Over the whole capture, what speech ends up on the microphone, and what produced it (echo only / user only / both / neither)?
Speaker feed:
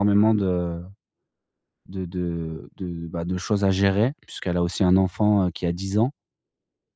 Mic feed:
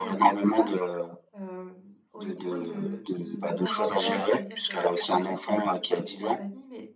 both